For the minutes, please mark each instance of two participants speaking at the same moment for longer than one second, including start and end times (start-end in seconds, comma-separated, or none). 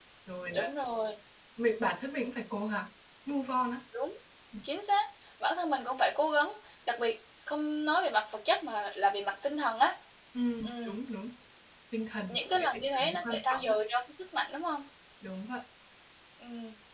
12.3-13.6